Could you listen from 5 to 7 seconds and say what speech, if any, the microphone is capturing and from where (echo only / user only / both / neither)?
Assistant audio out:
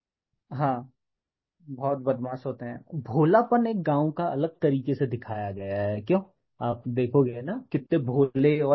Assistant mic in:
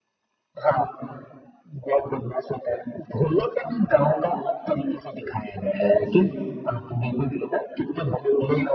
both